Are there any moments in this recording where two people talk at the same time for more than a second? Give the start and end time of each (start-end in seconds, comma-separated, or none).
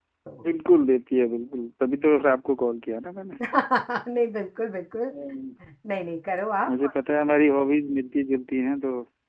none